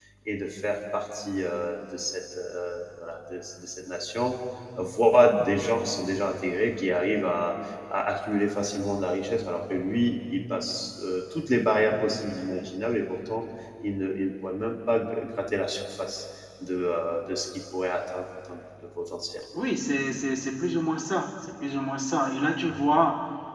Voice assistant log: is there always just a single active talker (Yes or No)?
Yes